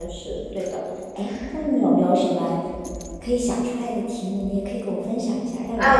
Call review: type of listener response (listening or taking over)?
taking over